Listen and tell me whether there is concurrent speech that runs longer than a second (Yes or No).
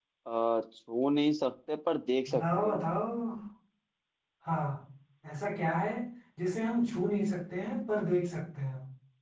No